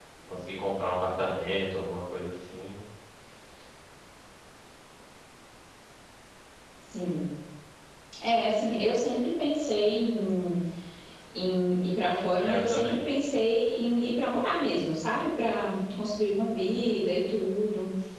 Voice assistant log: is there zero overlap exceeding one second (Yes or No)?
Yes